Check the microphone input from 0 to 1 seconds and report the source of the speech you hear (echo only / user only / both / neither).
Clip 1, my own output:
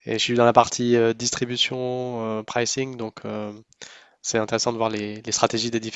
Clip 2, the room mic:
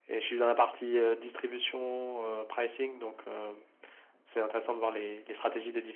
echo only